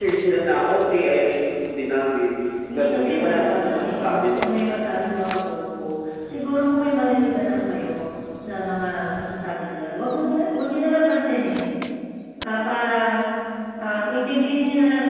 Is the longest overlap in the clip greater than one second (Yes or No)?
Yes